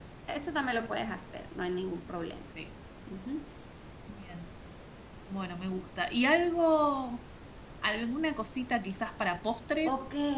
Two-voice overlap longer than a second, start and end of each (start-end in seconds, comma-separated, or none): none